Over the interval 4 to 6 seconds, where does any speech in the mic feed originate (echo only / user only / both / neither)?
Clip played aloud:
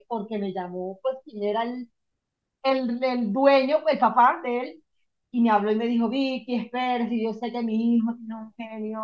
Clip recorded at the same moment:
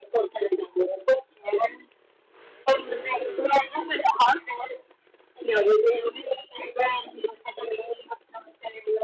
echo only